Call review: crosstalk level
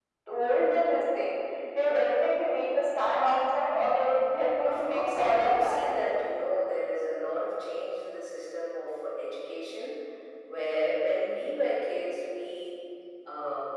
present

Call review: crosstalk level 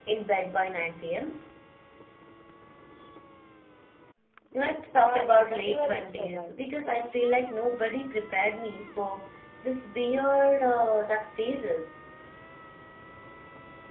present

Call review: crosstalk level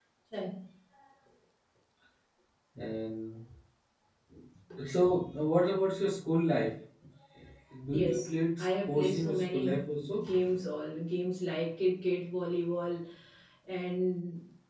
present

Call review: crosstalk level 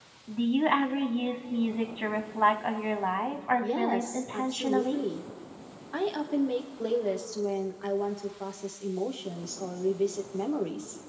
present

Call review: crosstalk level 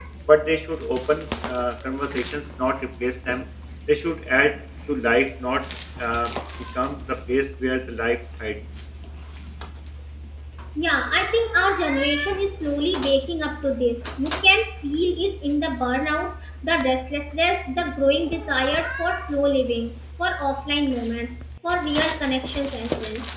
none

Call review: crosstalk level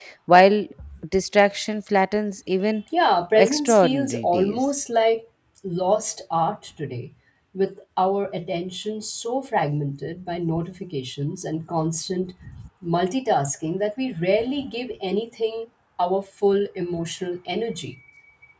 present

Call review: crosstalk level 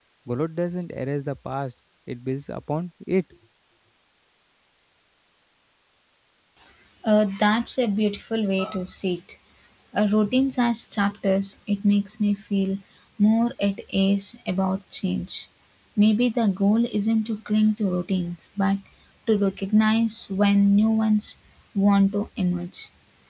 none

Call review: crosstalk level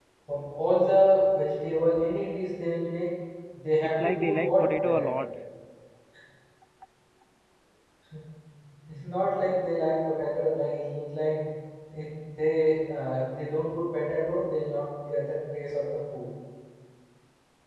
present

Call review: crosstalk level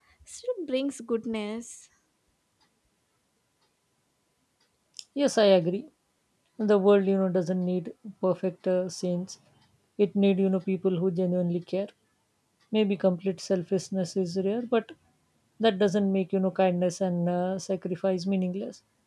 none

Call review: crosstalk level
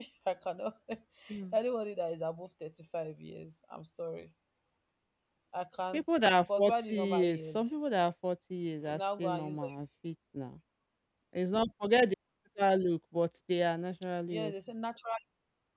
present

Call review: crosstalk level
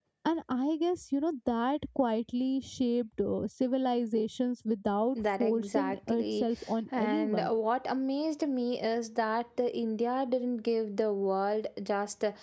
present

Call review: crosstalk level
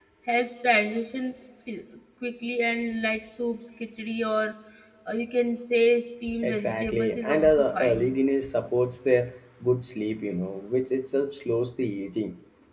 present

